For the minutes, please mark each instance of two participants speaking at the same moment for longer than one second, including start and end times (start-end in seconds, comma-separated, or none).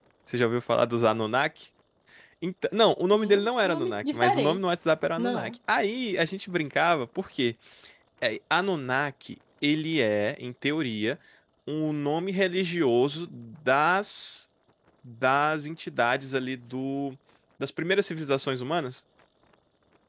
3.1-4.6